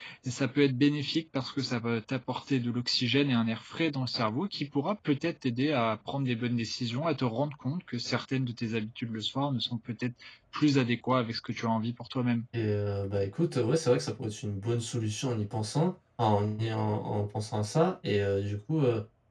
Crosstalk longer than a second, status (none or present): none